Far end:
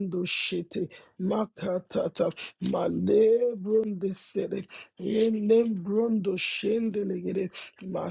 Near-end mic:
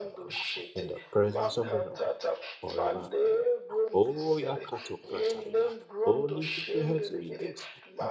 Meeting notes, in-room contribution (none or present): present